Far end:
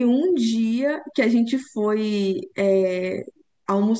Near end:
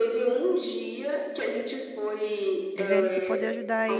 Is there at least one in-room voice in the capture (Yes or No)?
Yes